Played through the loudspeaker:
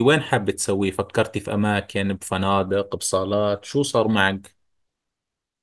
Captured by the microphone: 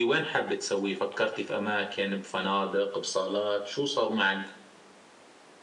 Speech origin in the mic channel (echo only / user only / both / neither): echo only